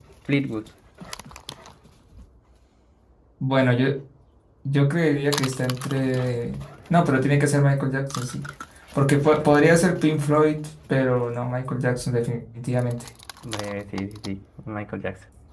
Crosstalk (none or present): none